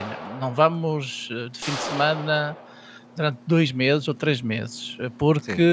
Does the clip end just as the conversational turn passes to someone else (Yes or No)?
No